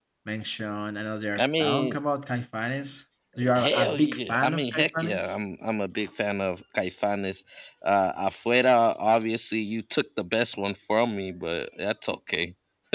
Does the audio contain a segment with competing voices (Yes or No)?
Yes